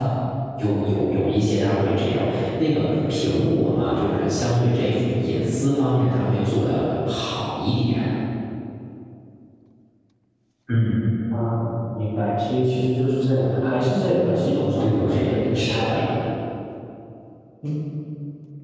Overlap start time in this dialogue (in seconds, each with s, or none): 14.8 s